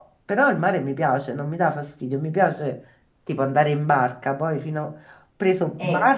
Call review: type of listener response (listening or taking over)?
listening